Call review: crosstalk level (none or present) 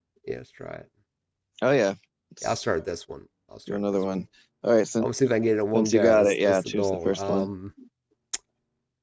present